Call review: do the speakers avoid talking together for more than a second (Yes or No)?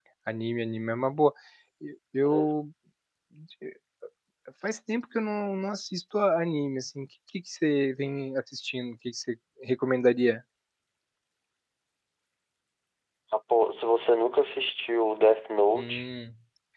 Yes